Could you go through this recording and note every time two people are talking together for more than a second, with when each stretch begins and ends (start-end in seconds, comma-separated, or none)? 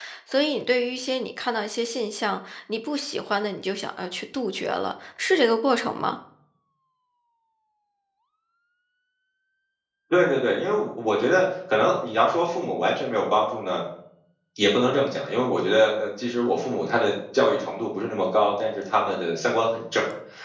none